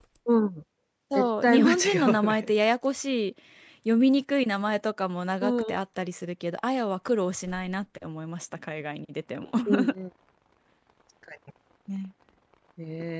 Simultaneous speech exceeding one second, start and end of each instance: 1.1-2.5

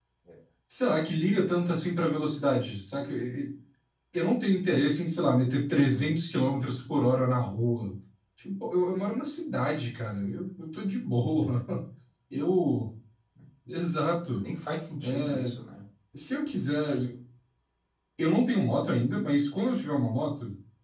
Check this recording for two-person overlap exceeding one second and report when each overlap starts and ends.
none

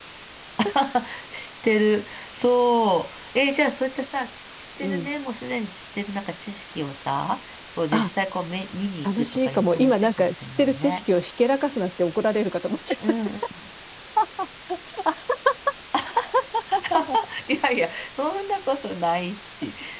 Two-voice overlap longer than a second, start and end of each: 9.0-11.0

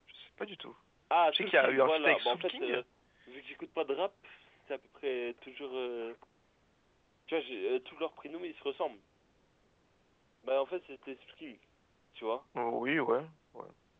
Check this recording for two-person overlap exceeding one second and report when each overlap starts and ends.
1.3-2.8

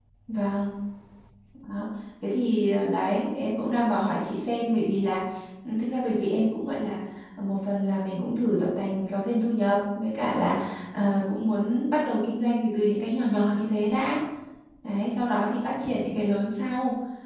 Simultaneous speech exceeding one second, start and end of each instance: none

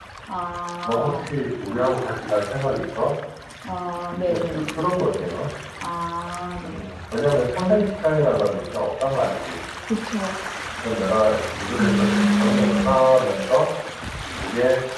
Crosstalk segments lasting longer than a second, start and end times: 11.8-13.1

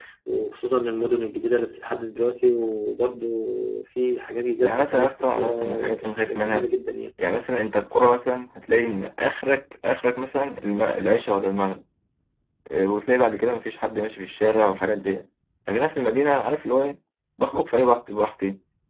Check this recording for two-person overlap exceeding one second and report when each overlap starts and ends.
4.6-6.7

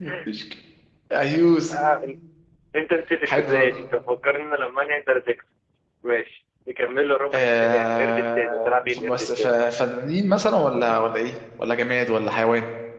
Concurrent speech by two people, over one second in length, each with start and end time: 7.3-9.7

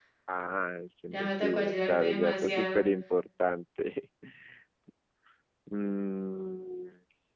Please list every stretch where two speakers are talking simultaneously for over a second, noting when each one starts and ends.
1.1-2.8

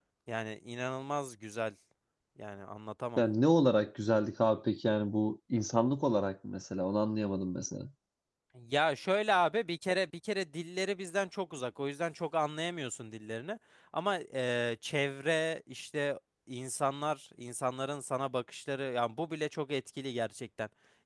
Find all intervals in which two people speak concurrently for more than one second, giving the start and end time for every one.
none

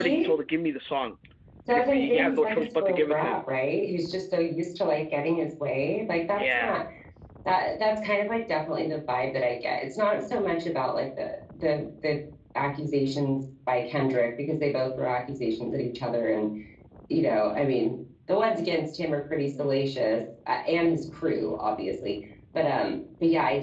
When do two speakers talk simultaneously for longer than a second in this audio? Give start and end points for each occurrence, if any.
1.7-3.4

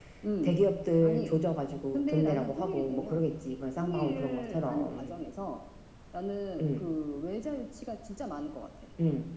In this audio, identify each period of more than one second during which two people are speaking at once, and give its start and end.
1.9-3.2, 3.8-5.2

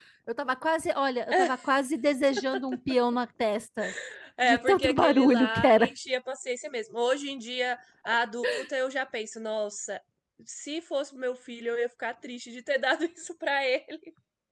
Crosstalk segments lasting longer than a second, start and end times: 4.4-5.9

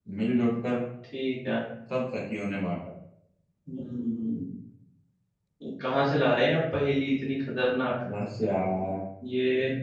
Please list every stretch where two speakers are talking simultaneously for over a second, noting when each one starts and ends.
none

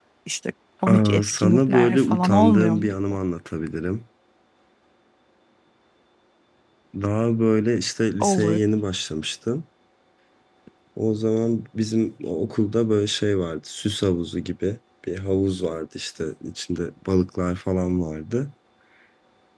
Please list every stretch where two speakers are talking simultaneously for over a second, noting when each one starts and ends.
0.9-3.2

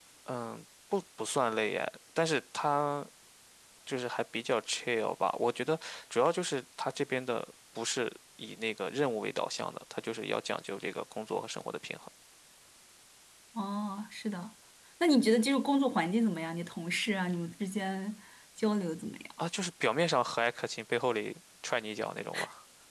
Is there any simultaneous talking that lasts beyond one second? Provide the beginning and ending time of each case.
none

